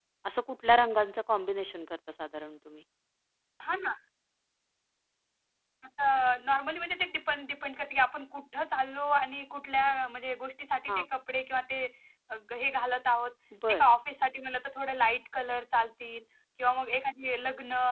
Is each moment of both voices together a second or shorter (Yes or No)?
Yes